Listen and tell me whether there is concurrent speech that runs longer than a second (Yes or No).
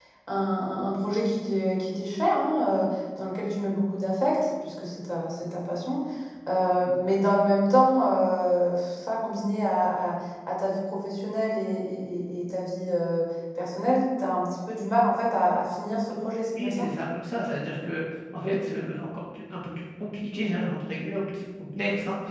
No